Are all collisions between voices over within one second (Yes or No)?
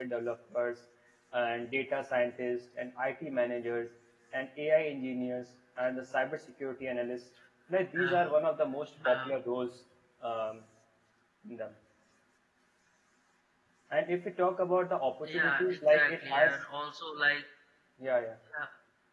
No